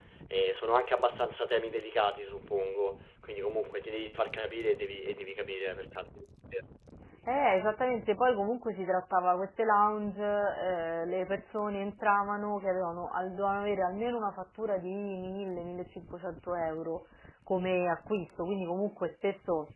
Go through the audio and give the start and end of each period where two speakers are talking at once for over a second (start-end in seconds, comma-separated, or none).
none